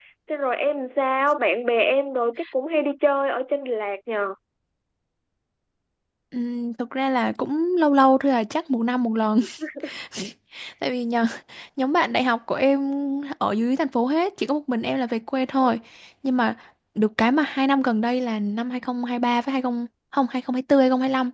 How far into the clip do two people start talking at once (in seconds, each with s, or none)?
none